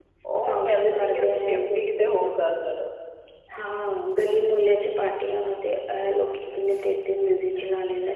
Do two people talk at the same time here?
Yes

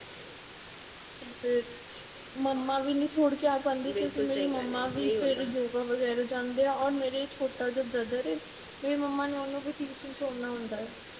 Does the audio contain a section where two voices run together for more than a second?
Yes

